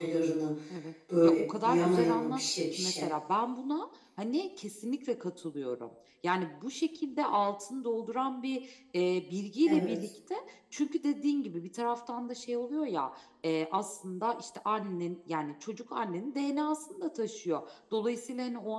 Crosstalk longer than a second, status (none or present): present